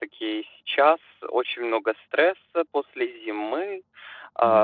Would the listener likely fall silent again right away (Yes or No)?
Yes